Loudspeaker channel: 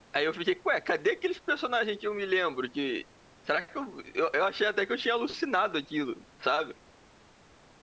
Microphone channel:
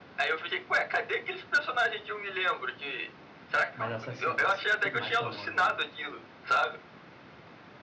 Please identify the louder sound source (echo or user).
echo